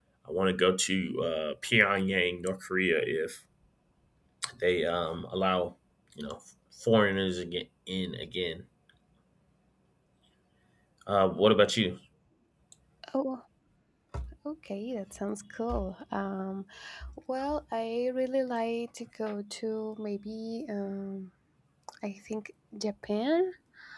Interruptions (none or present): none